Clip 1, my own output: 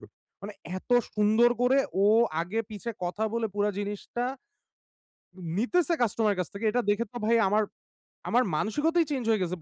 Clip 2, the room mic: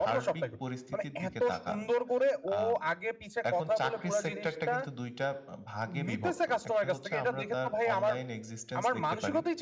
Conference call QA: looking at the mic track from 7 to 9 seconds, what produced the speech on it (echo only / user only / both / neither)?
both